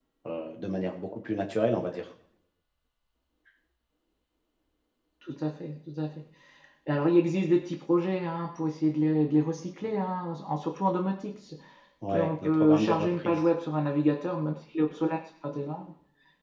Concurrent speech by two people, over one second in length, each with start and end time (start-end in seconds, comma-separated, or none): 12.1-13.4